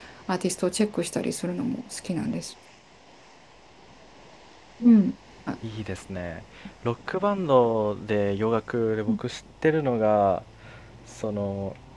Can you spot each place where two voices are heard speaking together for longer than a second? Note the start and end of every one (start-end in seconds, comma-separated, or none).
none